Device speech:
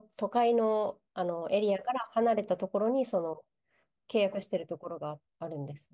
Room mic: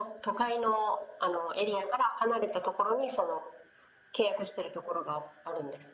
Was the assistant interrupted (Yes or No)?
No